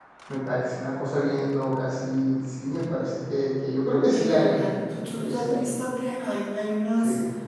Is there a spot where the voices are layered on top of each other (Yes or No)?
Yes